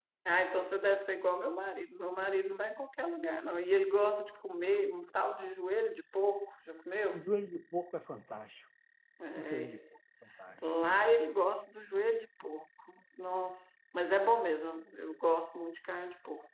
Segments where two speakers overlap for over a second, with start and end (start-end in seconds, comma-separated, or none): none